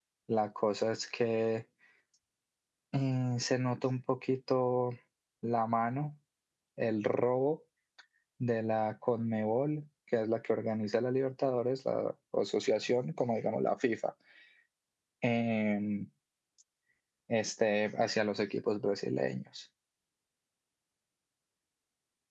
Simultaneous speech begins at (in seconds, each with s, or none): none